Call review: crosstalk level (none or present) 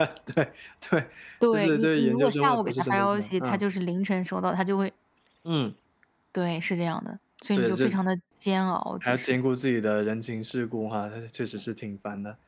present